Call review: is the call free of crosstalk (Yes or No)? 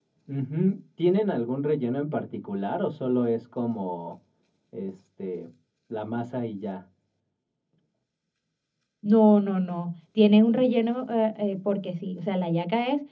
Yes